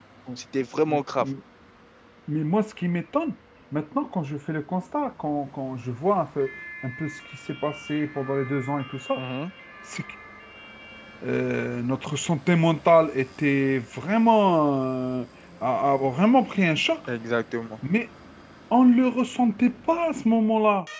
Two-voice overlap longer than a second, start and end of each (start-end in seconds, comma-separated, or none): none